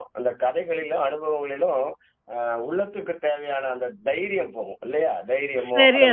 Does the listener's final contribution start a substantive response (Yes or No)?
No